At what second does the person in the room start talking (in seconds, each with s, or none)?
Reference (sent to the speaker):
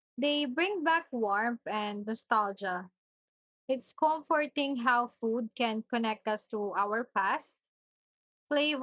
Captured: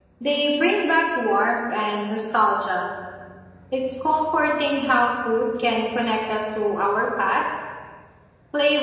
none